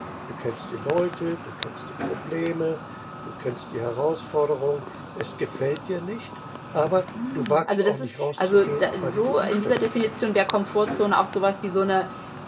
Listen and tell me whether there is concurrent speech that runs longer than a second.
Yes, from 7.1 s

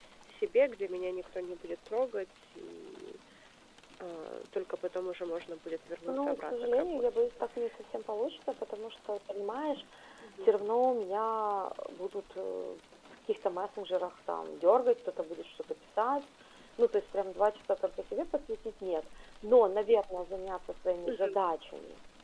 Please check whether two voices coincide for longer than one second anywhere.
Yes, from 6.1 s

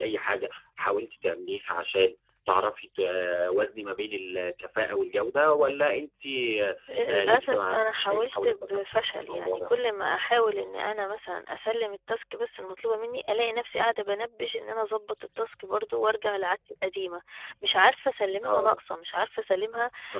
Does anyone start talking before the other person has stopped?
Yes, from 7.1 s

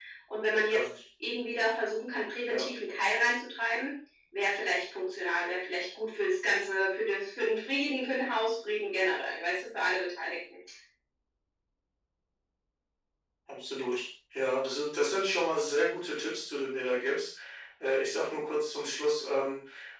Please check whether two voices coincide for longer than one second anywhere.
No

